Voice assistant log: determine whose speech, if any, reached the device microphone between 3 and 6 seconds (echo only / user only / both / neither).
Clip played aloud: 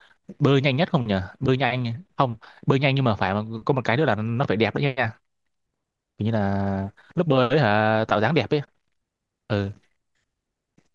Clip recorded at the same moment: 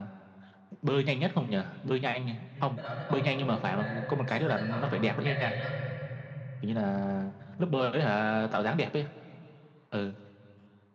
both